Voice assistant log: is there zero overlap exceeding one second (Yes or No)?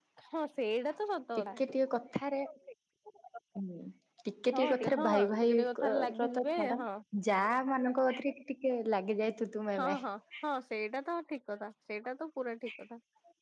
No